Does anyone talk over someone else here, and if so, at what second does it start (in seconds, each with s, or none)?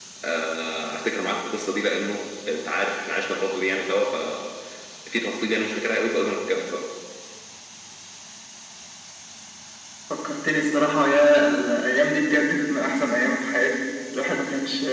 none